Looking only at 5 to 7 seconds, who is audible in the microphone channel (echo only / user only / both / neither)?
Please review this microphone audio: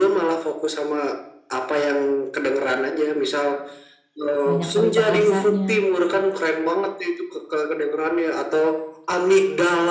both